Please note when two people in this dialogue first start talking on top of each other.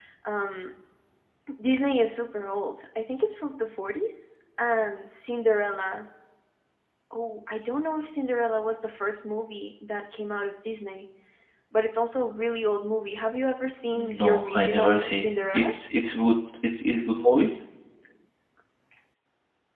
14.2 s

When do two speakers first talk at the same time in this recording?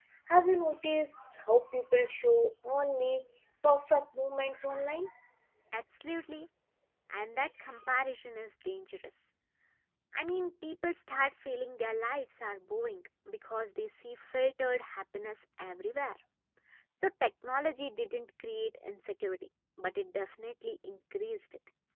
none

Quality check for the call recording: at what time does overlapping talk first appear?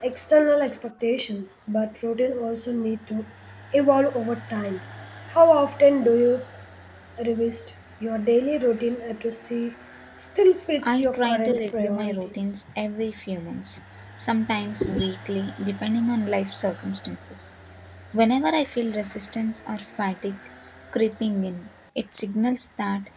10.8 s

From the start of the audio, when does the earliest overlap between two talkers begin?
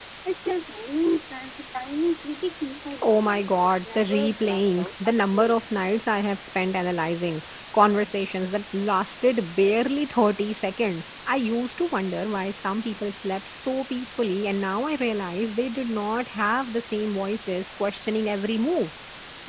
3.0 s

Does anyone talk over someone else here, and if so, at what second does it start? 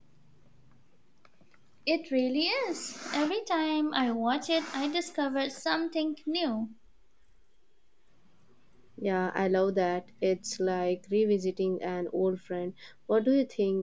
none

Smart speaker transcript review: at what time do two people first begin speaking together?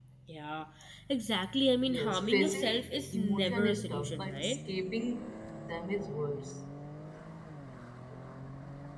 1.9 s

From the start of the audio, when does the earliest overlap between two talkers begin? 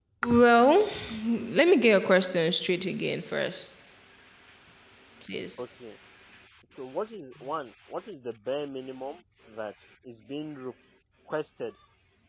none

